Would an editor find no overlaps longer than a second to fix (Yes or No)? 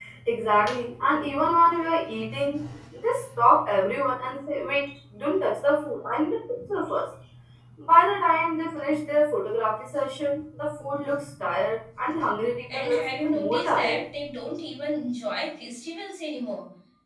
No